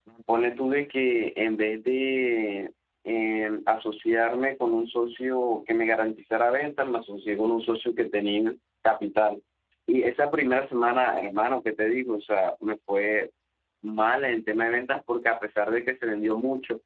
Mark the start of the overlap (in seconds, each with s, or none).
none